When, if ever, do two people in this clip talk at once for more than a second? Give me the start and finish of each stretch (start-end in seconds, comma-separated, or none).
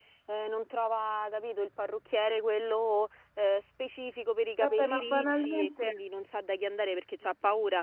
4.6-6.0